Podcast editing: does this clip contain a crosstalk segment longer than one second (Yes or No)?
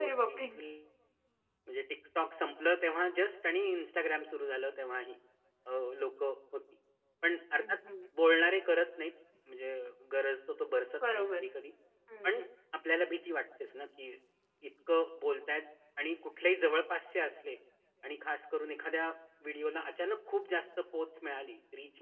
No